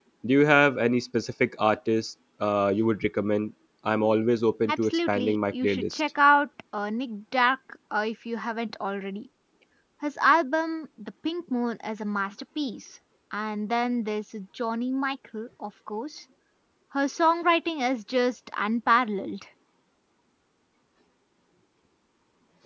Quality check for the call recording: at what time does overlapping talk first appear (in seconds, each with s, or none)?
4.7 s